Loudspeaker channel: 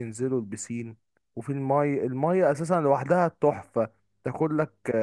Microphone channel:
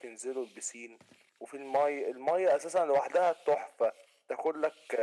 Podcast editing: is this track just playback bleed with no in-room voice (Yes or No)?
Yes